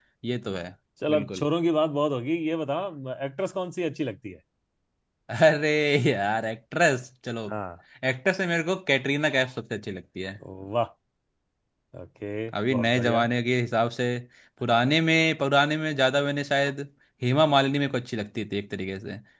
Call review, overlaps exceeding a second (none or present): none